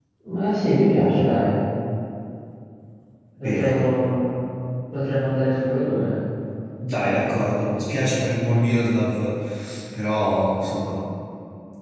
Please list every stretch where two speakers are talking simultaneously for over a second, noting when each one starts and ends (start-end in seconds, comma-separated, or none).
none